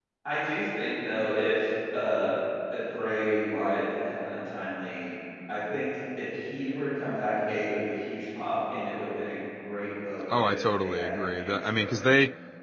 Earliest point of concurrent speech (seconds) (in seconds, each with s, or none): 10.3 s